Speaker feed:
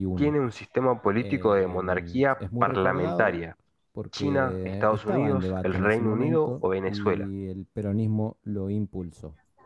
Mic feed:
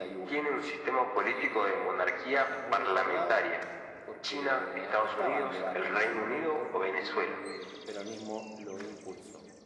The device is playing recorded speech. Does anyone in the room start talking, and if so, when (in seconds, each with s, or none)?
none